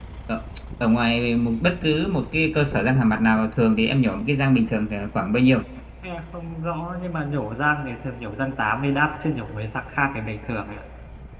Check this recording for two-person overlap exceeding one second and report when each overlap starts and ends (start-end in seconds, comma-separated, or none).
none